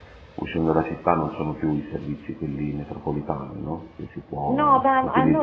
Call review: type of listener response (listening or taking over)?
taking over